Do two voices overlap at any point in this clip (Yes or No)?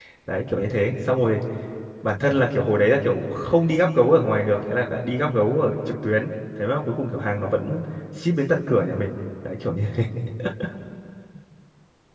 No